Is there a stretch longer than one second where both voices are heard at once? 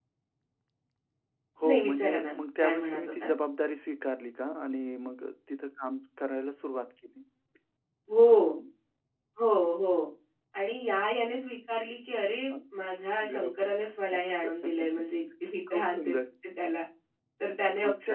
Yes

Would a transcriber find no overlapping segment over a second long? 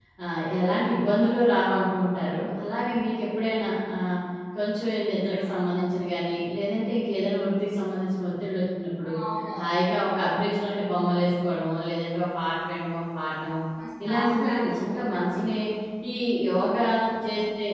No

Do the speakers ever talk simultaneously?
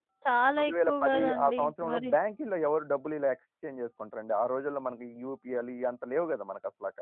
Yes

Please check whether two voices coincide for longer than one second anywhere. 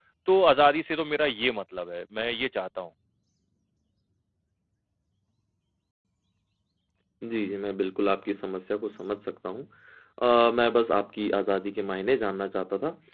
No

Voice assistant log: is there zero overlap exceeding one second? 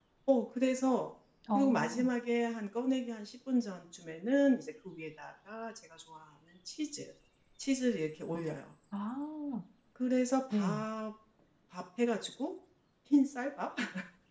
Yes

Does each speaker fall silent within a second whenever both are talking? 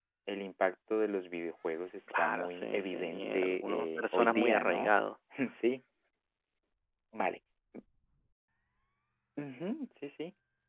No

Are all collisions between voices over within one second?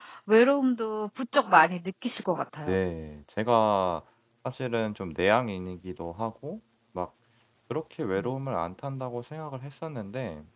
Yes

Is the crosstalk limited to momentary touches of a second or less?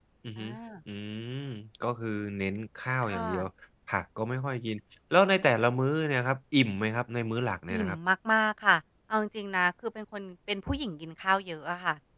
Yes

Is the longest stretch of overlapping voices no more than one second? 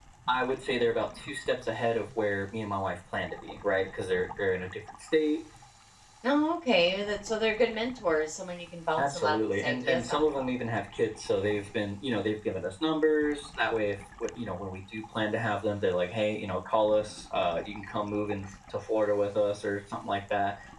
No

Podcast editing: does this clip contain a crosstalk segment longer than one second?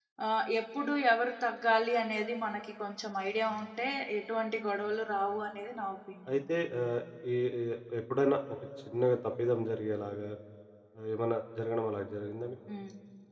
No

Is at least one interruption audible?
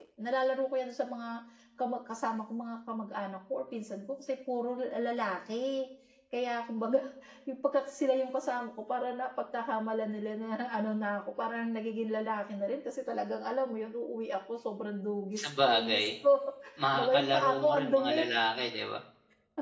Yes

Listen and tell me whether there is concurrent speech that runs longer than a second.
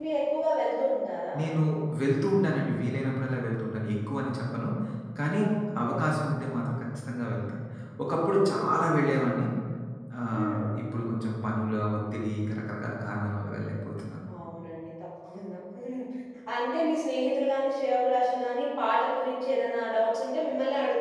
No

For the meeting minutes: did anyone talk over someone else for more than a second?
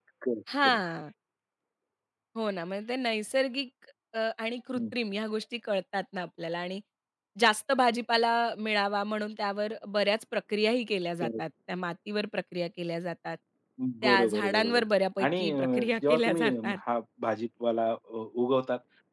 Yes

